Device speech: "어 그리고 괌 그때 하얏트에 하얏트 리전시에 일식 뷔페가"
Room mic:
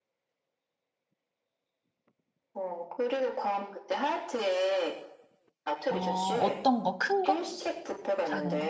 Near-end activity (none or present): present